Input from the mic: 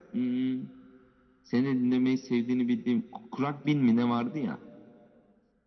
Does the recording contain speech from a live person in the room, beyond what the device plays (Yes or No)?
No